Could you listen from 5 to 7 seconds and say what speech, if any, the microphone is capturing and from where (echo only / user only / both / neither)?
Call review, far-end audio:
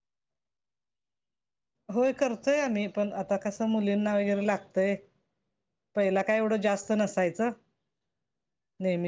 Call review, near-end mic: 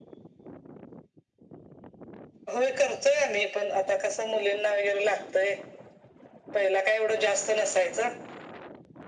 echo only